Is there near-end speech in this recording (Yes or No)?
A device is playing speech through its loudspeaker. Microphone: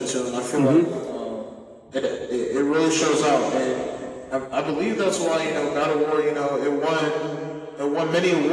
Yes